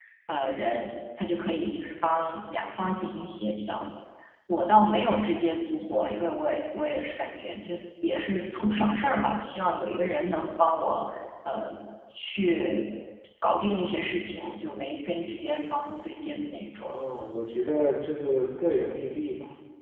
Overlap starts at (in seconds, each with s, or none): none